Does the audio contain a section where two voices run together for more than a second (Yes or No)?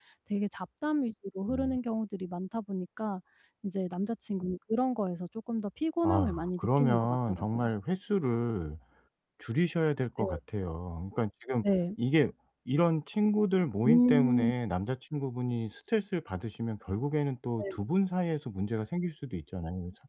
Yes